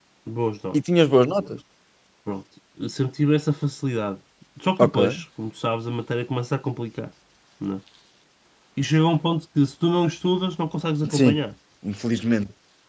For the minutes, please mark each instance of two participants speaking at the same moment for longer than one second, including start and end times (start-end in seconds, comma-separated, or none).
none